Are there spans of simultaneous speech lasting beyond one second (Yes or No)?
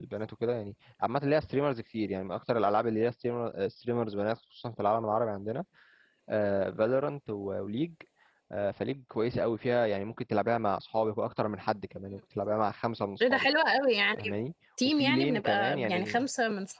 Yes